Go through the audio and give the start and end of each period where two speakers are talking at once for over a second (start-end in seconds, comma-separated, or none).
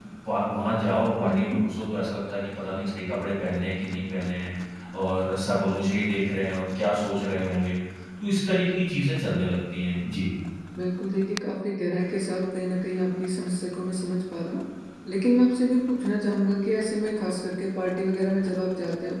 none